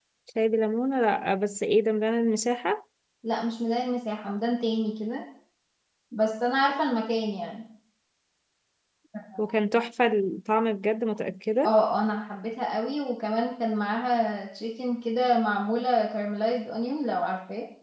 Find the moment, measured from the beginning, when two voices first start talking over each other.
none

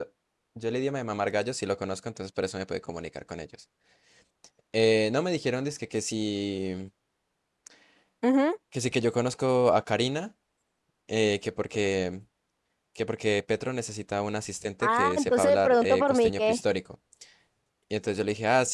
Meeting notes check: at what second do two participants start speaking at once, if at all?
14.8 s

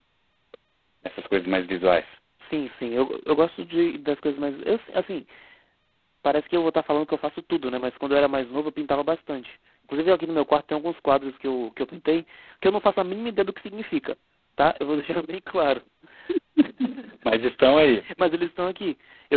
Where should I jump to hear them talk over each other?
none

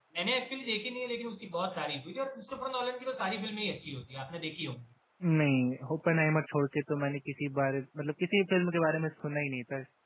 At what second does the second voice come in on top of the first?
none

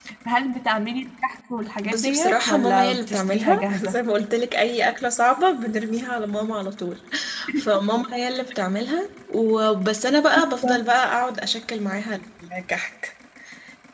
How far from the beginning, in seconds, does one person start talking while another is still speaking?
1.8 s

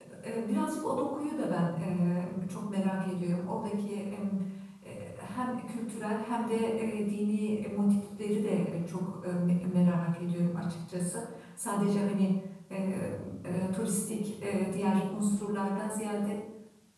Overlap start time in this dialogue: none

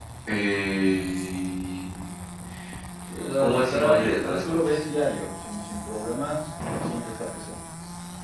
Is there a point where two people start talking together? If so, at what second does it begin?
3.4 s

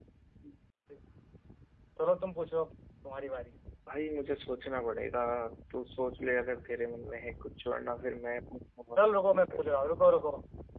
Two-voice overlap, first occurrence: none

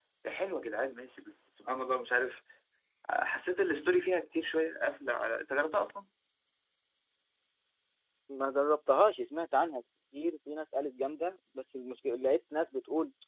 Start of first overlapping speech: none

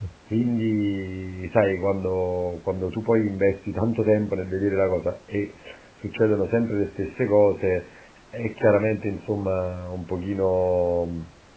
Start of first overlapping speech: none

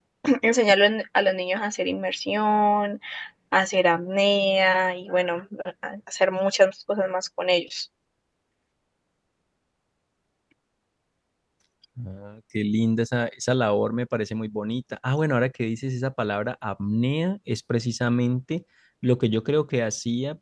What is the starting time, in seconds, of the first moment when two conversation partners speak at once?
none

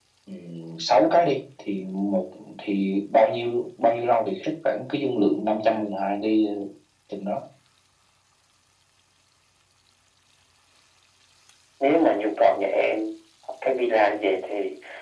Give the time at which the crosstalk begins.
none

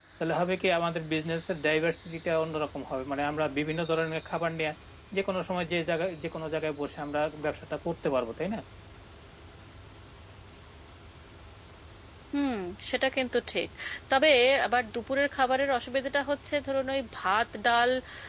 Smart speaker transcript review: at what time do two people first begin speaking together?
none

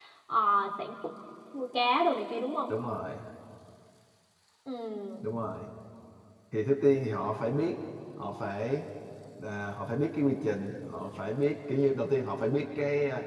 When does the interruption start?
none

